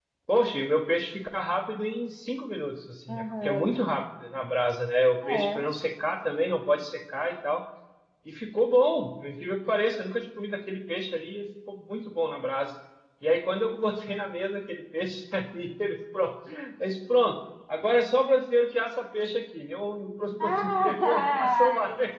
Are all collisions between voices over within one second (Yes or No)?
No